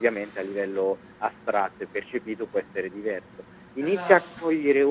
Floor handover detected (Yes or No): No